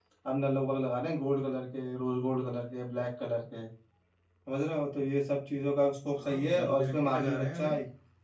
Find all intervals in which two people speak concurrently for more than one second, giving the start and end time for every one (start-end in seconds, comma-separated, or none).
6.2-7.7